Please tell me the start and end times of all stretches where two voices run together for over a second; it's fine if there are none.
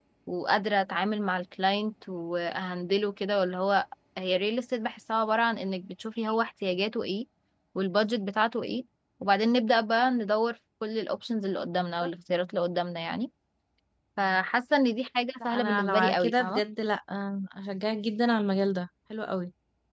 15.4-16.6

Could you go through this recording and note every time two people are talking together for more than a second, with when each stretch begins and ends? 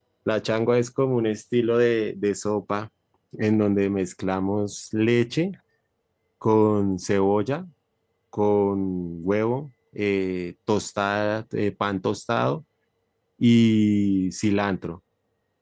none

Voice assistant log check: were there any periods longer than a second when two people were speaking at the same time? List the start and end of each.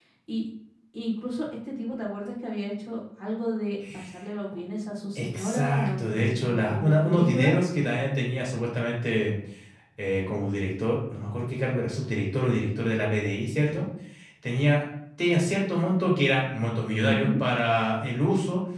5.2-7.6

